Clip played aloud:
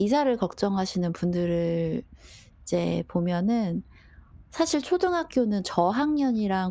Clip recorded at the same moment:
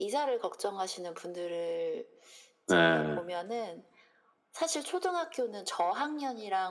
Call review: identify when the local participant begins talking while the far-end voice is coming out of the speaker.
2.7 s

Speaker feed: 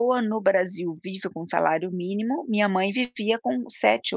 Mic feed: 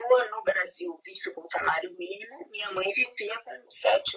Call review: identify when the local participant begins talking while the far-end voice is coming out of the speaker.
none

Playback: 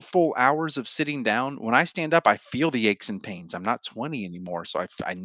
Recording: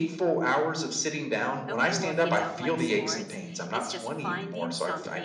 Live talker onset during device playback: 1.7 s

